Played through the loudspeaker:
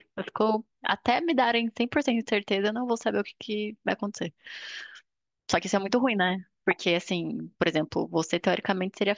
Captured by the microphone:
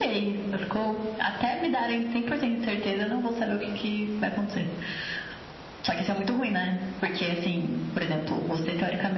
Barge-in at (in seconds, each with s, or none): none